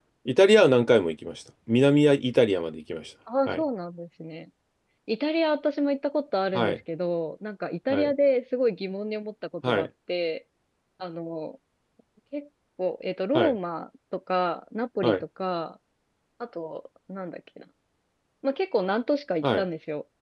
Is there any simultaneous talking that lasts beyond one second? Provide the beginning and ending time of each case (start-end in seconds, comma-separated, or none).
none